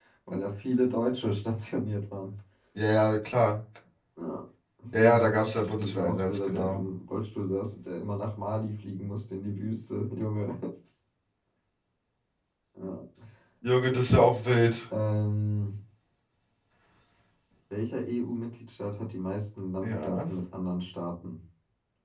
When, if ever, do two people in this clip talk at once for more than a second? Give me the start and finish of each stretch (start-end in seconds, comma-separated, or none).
5.0-6.8